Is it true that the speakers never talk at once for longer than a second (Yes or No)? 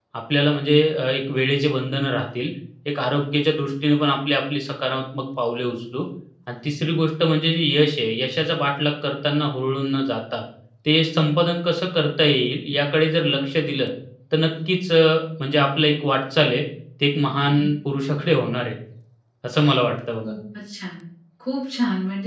Yes